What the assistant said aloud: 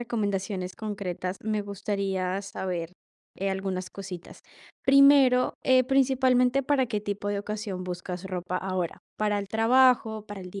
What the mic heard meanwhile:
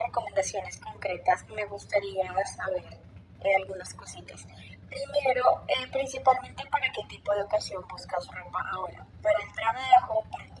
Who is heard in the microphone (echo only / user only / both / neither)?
echo only